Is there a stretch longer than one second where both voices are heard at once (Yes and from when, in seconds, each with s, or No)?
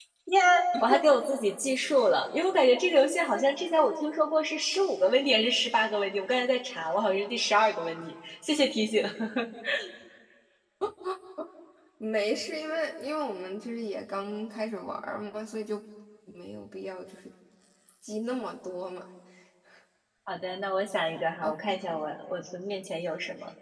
No